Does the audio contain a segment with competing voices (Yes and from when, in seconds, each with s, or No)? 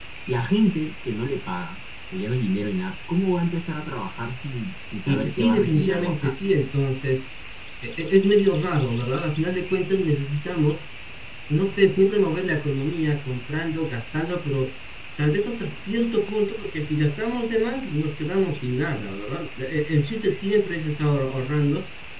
Yes, from 5.1 s